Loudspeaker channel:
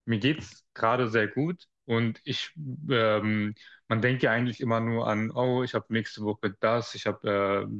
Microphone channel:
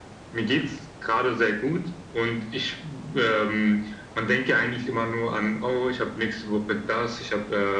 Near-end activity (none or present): none